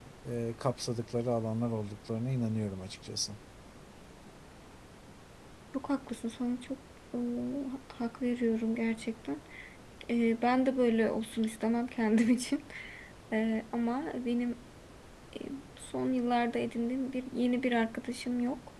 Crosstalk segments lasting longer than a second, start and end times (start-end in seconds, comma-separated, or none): none